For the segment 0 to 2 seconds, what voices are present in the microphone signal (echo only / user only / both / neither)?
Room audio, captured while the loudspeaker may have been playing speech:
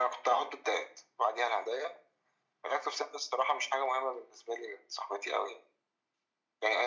echo only